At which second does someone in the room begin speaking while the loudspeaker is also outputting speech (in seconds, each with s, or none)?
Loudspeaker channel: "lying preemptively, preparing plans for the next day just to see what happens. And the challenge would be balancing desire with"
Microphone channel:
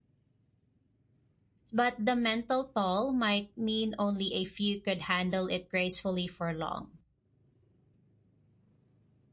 1.7 s